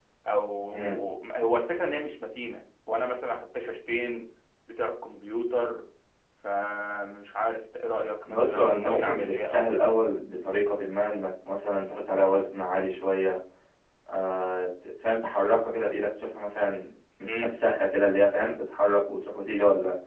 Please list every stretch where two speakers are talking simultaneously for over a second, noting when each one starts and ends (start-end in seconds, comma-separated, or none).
8.2-9.9